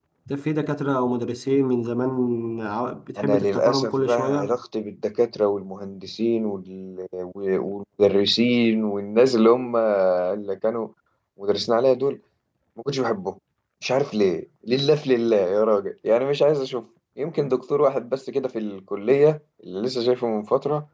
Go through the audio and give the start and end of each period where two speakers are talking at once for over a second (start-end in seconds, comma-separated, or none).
3.2-4.5